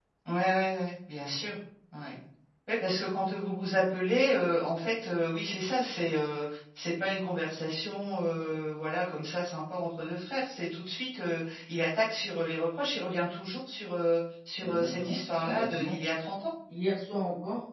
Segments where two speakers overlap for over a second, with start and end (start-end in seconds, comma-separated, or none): 14.6-15.9